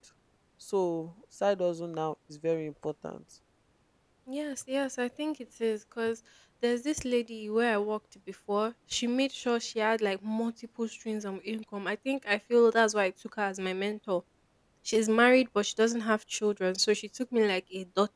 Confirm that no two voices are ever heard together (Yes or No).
Yes